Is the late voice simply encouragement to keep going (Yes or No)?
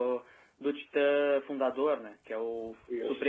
Yes